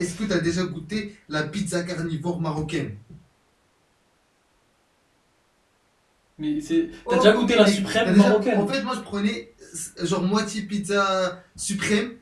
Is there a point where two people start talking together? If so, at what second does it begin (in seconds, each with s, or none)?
7.1 s